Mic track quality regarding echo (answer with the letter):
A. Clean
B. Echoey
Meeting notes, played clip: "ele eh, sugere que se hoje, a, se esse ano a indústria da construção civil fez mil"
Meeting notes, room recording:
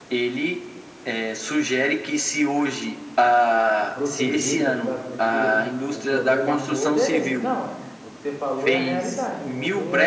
B